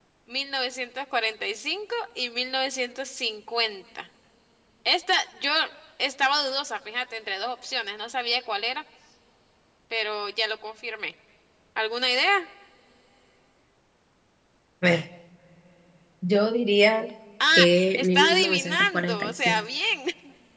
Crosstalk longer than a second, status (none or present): present